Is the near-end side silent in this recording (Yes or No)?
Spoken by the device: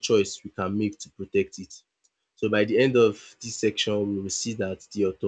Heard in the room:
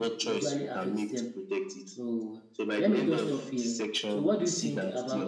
No